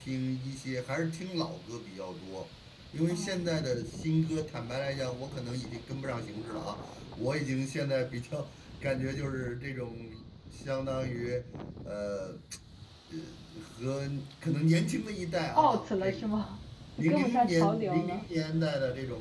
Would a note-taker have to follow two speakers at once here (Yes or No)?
Yes